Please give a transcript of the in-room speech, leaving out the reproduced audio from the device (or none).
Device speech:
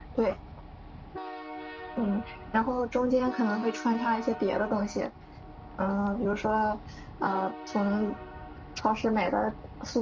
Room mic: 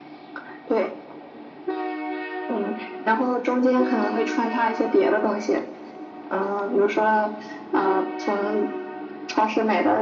none